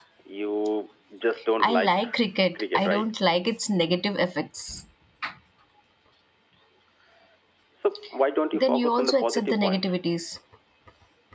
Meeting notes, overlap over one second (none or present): present